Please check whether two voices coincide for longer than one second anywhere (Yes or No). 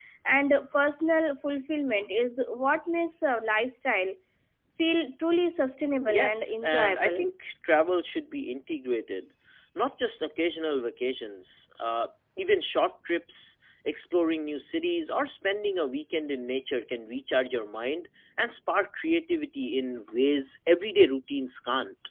Yes